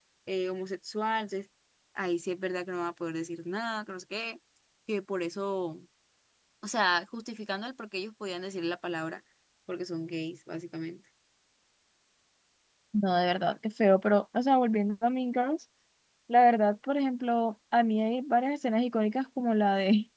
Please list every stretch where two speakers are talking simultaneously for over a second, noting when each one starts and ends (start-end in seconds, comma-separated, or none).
none